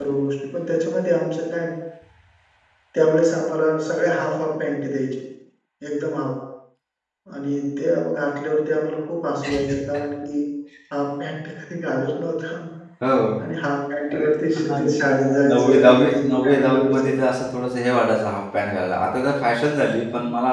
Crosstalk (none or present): present